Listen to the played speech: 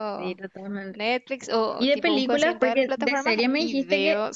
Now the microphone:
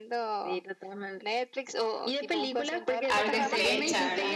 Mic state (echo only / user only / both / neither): both